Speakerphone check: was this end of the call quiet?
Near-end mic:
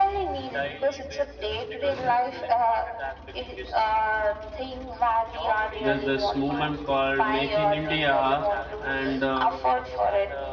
No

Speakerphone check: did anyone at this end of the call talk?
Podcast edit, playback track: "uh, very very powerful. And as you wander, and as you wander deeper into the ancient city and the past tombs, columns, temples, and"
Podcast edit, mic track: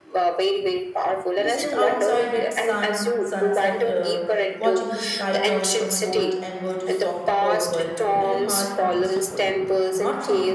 Yes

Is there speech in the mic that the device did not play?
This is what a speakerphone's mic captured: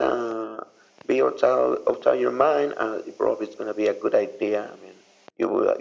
No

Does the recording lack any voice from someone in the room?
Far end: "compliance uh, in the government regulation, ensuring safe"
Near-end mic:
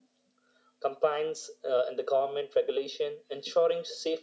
Yes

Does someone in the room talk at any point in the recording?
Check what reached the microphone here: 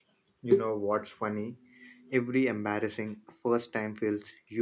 Yes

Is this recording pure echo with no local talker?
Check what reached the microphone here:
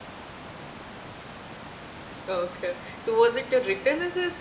No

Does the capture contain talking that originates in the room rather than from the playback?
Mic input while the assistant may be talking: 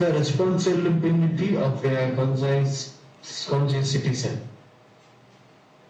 No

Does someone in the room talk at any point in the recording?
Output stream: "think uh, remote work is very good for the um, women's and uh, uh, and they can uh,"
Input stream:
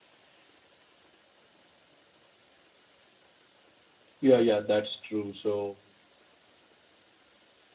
Yes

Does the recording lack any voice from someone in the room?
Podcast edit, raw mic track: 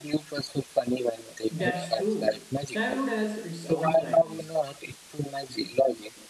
No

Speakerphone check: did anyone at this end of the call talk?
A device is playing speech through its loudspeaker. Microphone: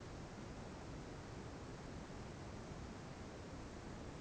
No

